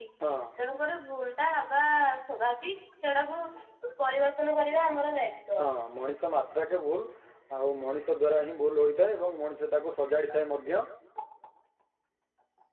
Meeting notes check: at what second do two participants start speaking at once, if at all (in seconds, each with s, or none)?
none